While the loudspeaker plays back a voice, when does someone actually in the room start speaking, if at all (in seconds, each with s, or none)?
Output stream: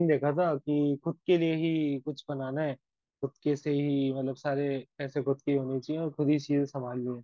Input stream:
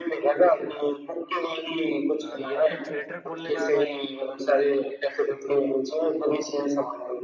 2.2 s